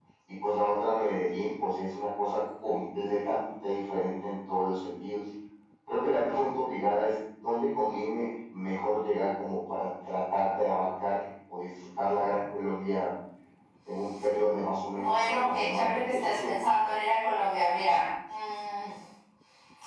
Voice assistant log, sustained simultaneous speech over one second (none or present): present